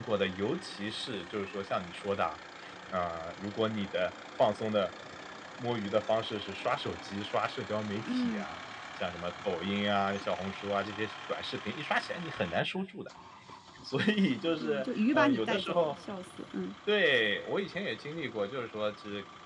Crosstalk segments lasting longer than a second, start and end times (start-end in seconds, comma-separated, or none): 14.6-15.9